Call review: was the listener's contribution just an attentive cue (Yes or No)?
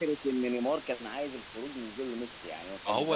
No